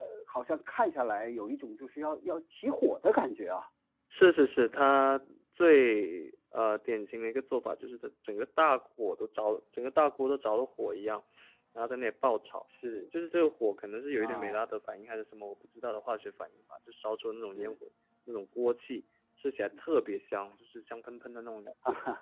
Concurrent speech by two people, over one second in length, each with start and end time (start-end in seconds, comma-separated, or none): none